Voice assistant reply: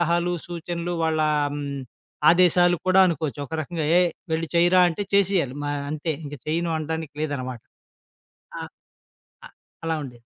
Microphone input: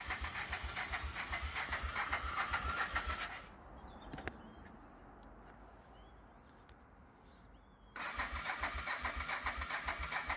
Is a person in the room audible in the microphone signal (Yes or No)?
No